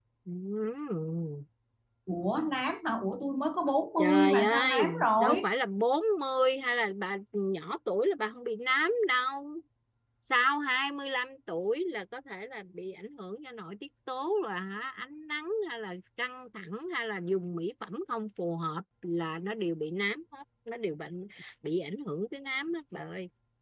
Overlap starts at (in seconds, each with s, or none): 4.0 s